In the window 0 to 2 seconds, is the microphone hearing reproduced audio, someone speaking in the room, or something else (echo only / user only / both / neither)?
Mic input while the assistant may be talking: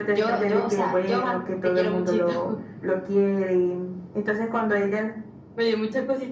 echo only